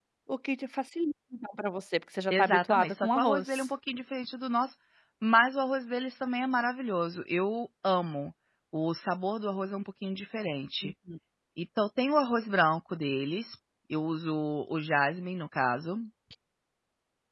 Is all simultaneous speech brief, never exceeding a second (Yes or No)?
No